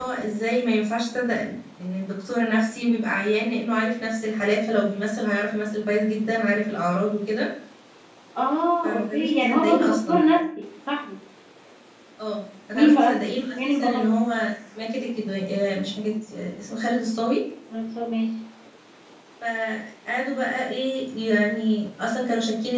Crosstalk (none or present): present